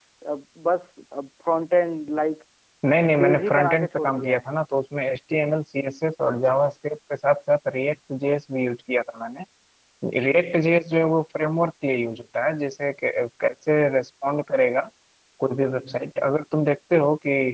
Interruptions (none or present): present